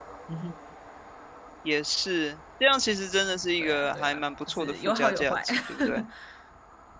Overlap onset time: 3.6 s

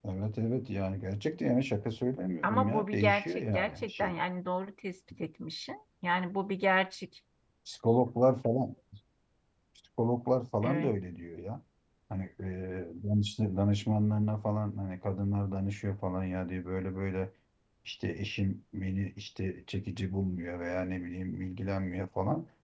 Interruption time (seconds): 2.4 s

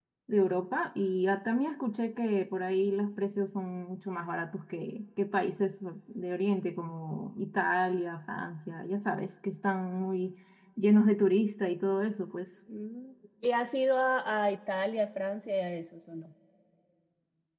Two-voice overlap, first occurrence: none

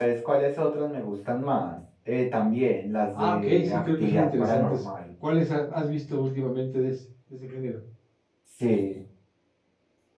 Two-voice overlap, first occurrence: 3.1 s

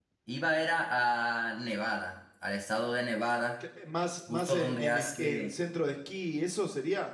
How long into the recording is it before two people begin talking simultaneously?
4.3 s

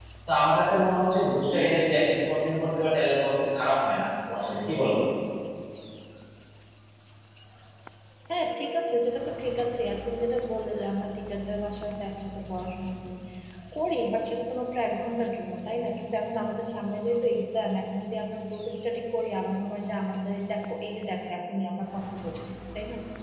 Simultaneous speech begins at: none

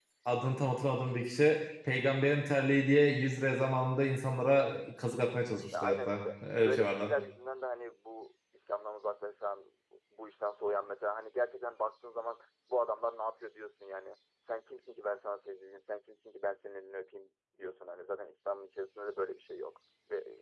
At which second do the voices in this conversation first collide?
5.7 s

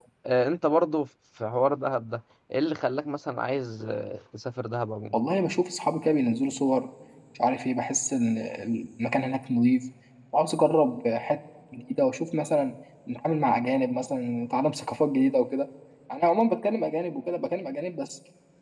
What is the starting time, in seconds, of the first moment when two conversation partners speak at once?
none

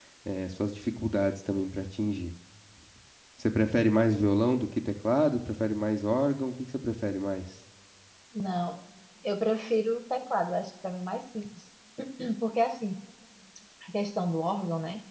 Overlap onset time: none

